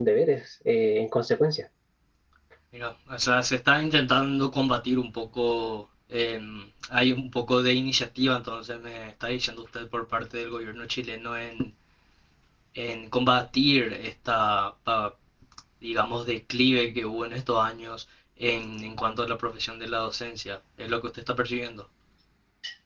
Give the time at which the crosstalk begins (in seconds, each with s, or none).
none